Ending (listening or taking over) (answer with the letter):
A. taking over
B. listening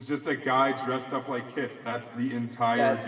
A